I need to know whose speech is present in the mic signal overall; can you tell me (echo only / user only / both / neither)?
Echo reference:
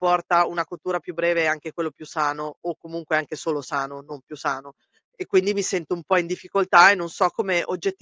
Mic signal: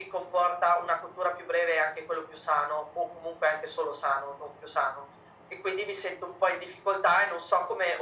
echo only